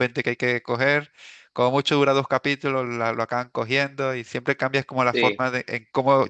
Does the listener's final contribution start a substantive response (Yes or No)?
No